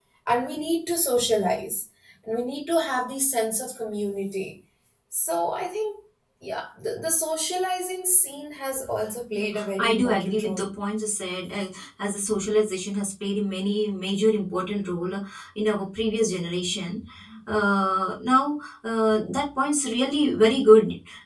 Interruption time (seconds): 9.3 s

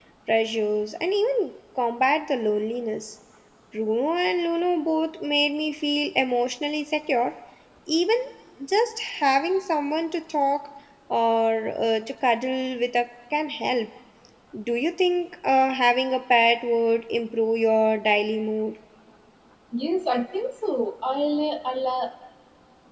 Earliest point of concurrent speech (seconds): none

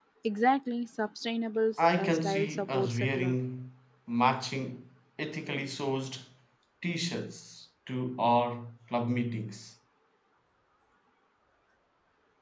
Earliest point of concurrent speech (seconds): 1.8 s

